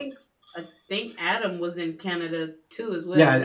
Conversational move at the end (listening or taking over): taking over